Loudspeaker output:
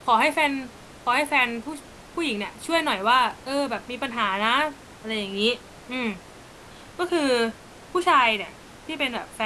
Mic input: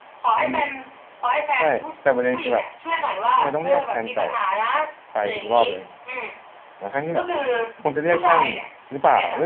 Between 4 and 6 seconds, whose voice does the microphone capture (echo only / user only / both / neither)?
both